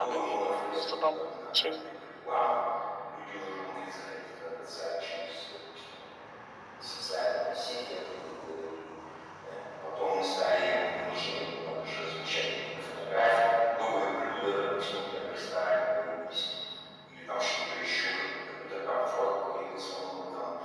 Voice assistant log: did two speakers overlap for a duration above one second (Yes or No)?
Yes